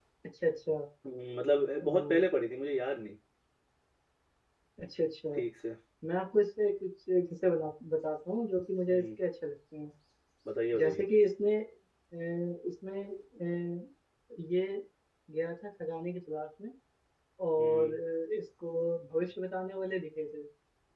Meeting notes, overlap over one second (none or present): none